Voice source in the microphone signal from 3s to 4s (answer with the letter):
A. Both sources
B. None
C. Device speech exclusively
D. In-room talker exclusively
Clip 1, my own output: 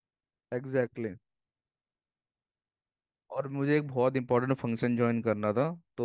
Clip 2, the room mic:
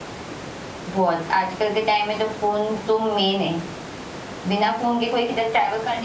D